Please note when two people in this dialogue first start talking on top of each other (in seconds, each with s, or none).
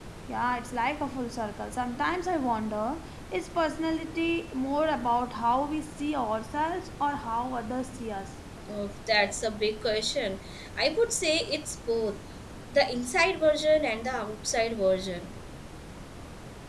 none